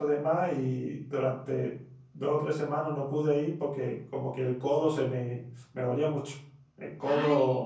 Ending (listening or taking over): listening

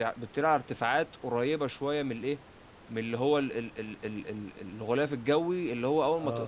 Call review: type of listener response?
listening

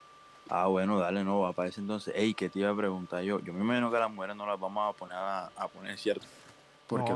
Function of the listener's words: listening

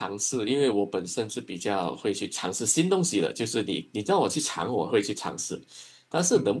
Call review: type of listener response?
listening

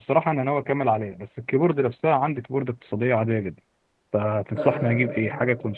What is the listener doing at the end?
listening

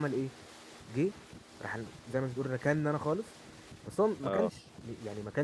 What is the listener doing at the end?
listening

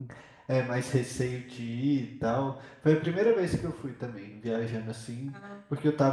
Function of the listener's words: listening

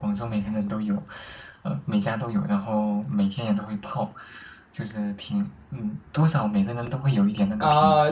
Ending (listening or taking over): taking over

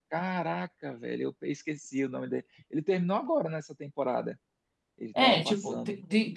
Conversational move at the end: taking over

